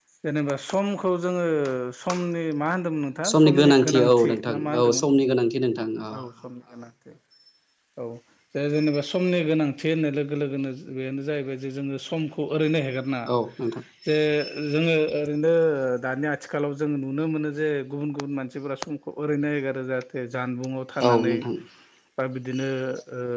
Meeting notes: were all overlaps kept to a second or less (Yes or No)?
No